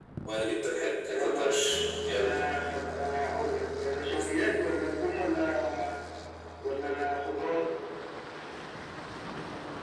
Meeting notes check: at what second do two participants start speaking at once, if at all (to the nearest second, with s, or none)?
1 s